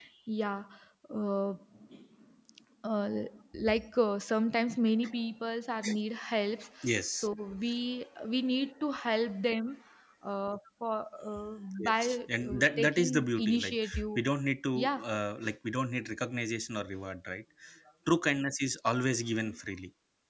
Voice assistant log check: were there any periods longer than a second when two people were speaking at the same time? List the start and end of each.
11.8-14.2

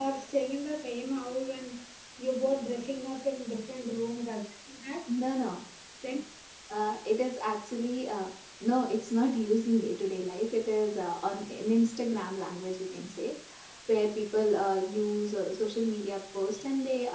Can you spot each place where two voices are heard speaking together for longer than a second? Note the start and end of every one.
none

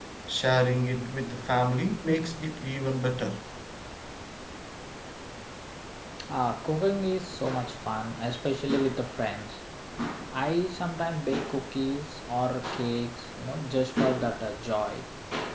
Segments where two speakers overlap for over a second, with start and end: none

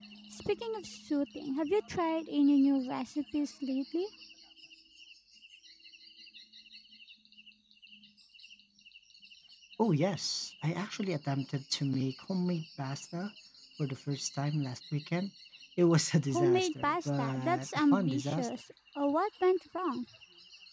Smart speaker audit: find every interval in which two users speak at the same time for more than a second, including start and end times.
16.3-18.5

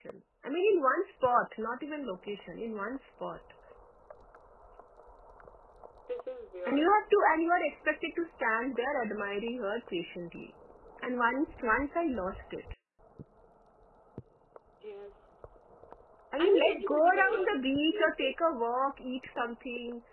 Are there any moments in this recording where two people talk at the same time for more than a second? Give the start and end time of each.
16.4-18.2

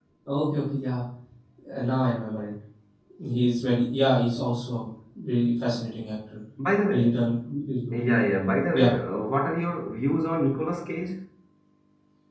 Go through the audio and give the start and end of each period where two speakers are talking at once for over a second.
none

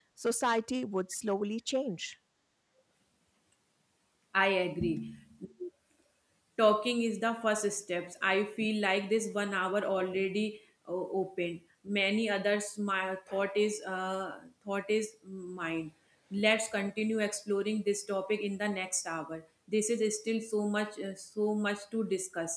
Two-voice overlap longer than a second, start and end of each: none

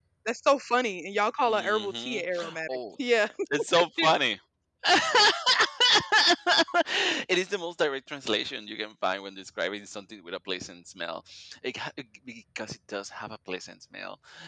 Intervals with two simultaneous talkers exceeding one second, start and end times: 1.5-2.8

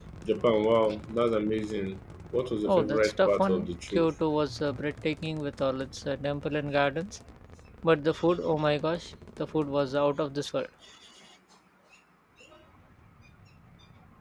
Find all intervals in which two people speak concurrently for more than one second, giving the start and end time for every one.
2.7-4.1

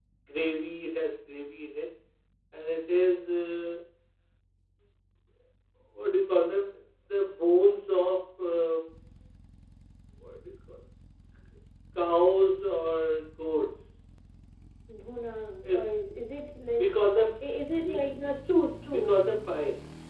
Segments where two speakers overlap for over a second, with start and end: none

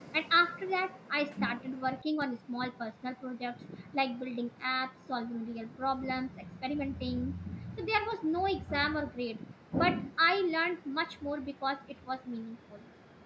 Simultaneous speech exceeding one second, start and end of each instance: none

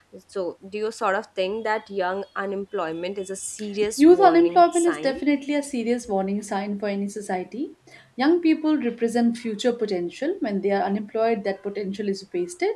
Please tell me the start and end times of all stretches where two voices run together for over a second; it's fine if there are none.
4.0-5.2

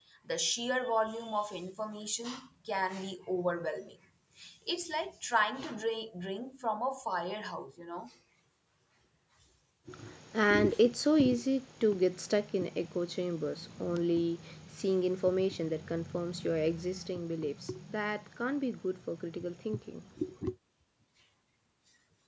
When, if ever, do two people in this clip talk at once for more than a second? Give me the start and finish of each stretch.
none

